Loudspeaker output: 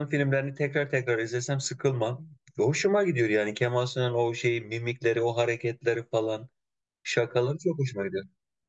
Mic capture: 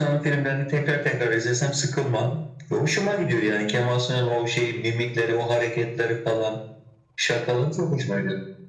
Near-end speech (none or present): none